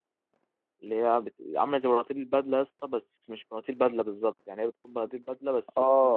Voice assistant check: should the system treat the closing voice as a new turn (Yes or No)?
Yes